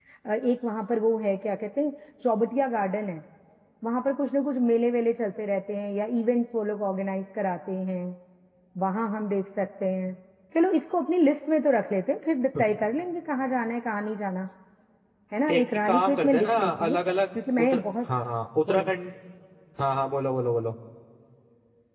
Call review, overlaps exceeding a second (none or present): present